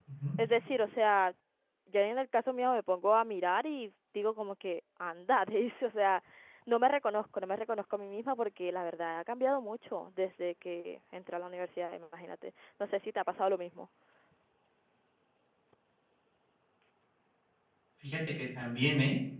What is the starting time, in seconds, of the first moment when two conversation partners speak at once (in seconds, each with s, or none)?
none